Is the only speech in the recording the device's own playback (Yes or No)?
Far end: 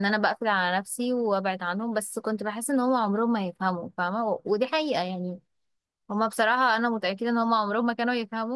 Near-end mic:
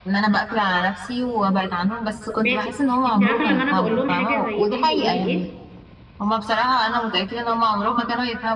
No